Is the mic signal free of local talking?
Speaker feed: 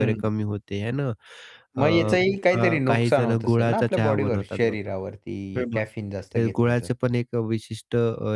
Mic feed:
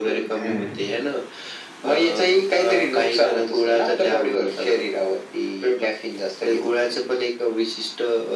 No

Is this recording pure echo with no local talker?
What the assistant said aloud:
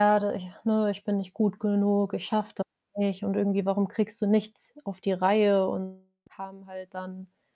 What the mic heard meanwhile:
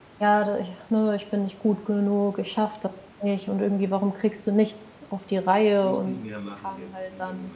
No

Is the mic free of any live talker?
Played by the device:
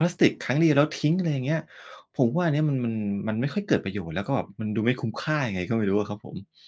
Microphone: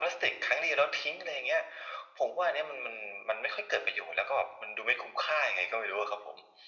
Yes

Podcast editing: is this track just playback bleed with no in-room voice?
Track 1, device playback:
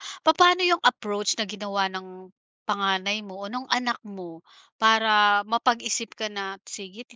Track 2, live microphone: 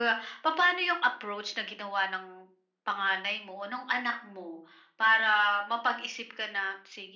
Yes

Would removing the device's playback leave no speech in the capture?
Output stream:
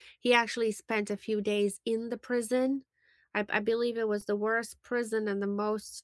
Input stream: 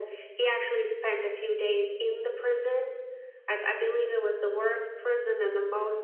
Yes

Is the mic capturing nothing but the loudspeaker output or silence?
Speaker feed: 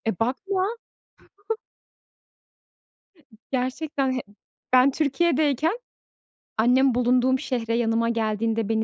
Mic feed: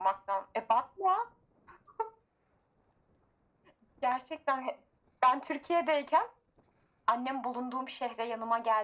Yes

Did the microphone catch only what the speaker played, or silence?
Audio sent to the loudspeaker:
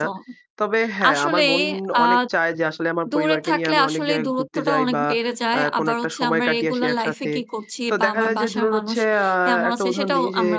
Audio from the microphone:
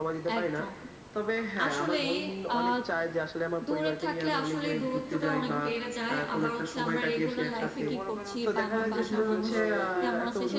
No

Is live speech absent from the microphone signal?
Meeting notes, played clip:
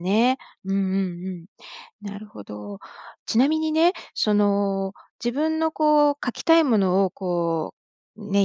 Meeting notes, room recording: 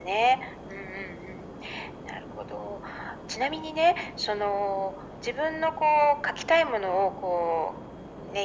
Yes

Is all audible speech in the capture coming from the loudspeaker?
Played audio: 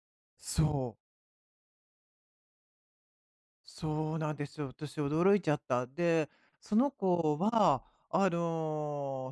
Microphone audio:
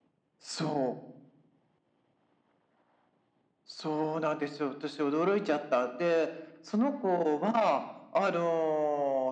Yes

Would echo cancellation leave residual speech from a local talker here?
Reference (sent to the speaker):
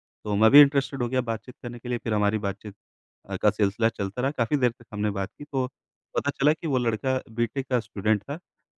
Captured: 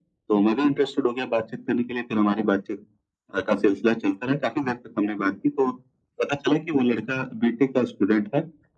No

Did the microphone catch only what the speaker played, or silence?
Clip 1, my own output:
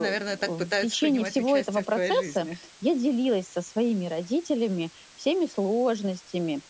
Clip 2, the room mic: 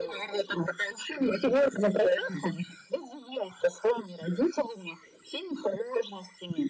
Yes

